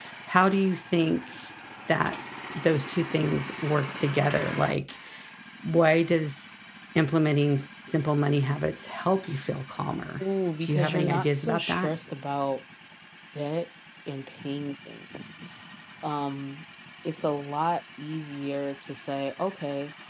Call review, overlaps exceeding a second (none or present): present